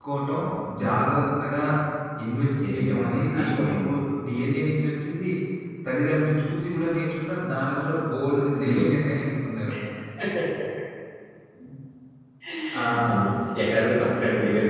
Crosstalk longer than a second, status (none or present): present